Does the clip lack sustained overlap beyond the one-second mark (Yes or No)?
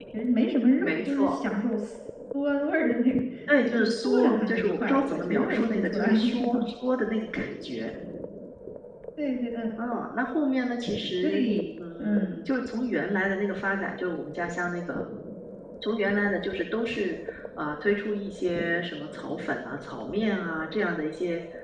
No